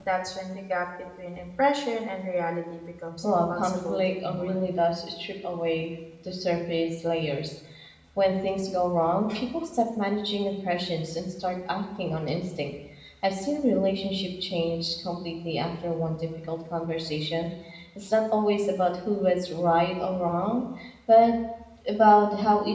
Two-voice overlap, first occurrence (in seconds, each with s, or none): 3.2 s